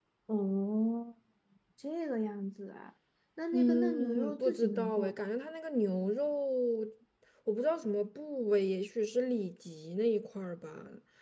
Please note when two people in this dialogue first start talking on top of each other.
3.5 s

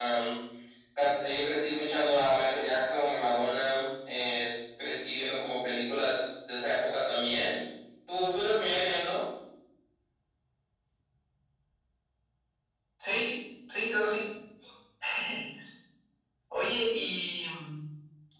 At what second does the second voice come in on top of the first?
none

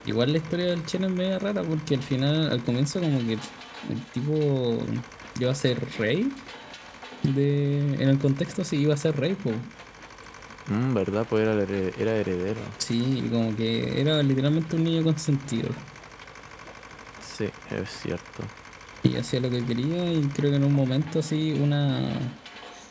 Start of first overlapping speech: none

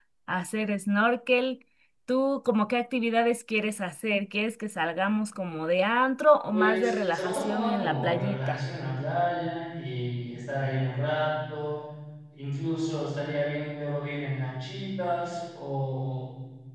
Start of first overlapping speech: 6.5 s

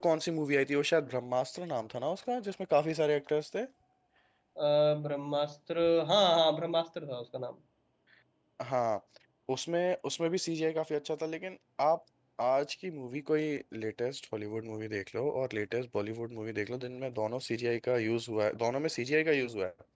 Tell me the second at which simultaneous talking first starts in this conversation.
none

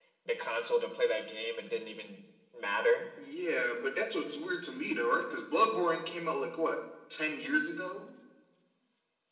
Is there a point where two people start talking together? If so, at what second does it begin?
none

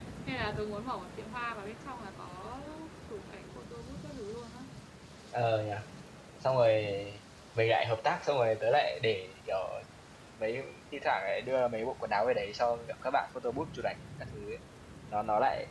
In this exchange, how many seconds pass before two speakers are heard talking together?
none

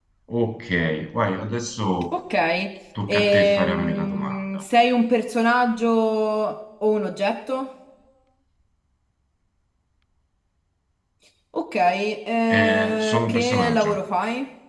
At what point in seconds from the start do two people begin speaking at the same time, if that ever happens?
3.1 s

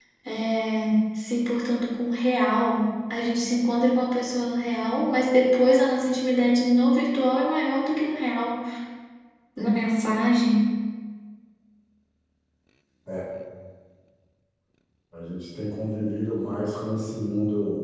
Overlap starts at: none

